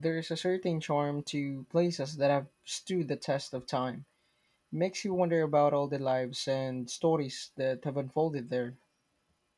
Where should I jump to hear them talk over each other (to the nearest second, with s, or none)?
none